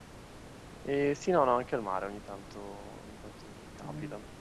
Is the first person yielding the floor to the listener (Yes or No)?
No